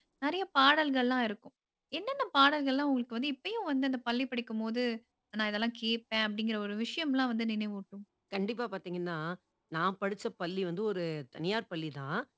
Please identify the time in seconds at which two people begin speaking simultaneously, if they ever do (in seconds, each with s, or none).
none